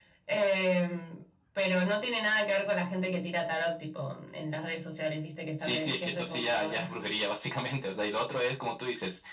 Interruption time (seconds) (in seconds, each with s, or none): 5.6 s